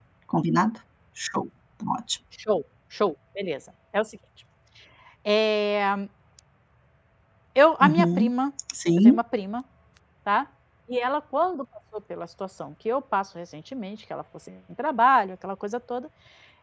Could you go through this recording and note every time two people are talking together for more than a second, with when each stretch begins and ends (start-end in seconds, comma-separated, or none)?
none